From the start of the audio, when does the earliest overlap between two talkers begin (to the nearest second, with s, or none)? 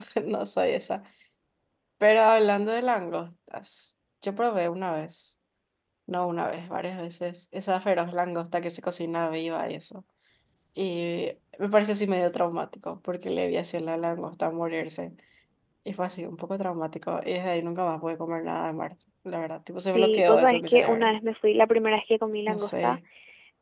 20 s